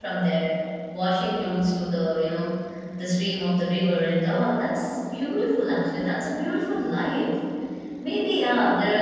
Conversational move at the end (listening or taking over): listening